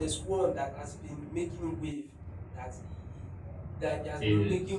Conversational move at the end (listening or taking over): listening